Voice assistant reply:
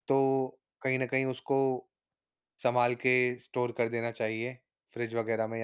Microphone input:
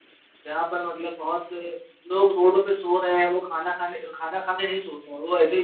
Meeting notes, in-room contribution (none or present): present